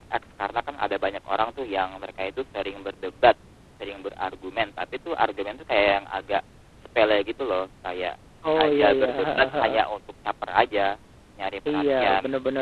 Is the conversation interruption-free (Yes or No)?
No